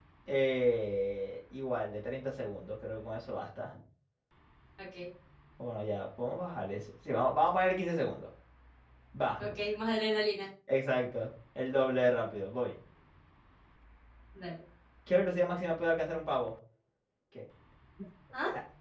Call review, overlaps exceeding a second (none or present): none